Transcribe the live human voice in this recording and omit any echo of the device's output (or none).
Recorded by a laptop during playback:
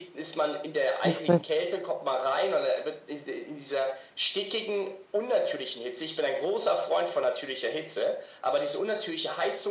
Lustig.